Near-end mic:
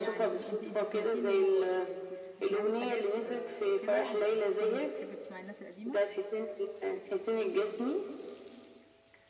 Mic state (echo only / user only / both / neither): both